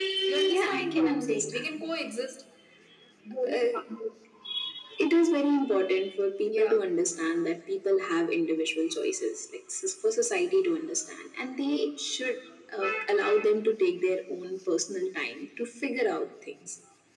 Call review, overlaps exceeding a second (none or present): present